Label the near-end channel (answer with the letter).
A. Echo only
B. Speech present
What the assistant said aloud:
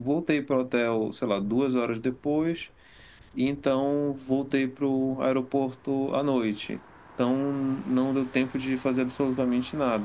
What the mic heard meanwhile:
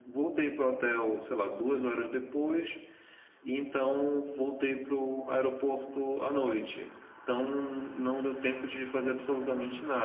A